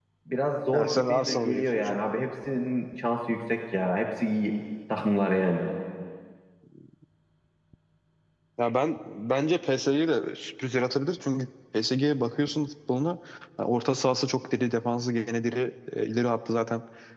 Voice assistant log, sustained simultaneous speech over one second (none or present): present